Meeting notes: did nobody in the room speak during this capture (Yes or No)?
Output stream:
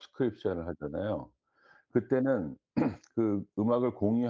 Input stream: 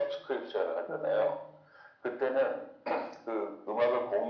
No